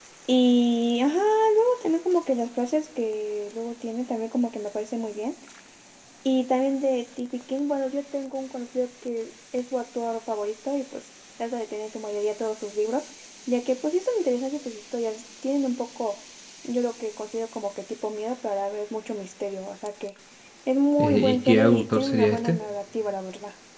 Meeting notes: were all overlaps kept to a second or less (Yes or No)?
No